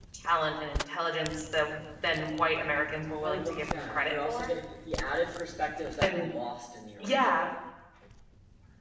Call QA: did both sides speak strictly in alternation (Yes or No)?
No